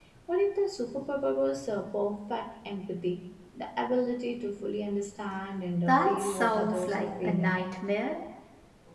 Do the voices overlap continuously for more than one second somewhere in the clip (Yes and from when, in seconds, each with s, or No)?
Yes, from 5.9 s